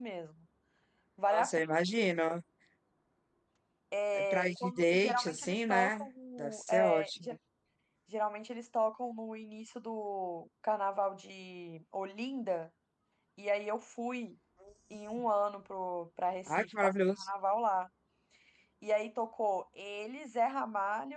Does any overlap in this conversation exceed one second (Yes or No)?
Yes